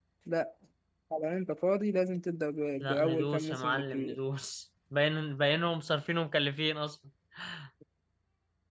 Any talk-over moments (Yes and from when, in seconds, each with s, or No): Yes, from 2.8 s